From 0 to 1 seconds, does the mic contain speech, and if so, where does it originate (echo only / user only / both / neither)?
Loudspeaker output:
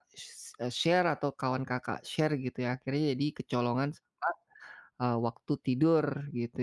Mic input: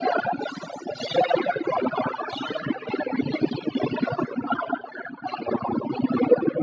echo only